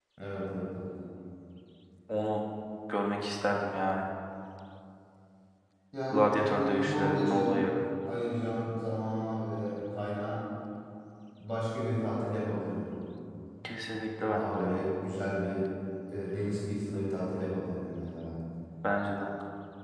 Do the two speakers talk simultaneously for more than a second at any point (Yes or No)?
Yes